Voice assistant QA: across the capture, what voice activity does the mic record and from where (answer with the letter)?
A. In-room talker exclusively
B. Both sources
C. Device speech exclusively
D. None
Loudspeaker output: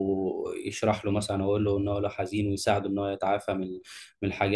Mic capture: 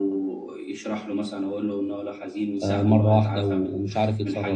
B